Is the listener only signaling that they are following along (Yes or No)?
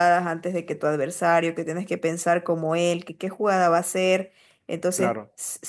Yes